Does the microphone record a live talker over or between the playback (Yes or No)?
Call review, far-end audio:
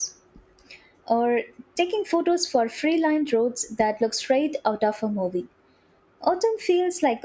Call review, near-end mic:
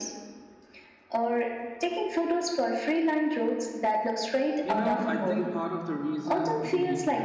Yes